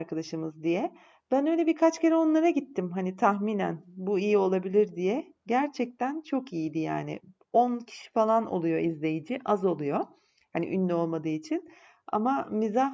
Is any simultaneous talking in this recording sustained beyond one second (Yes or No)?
No